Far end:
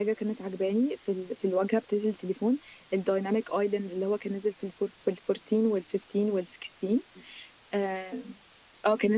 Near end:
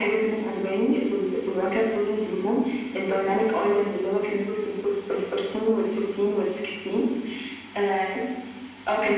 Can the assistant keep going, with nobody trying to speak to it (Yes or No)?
Yes